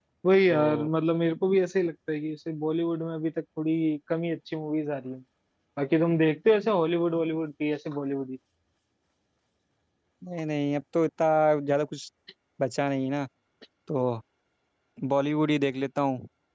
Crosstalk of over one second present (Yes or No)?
No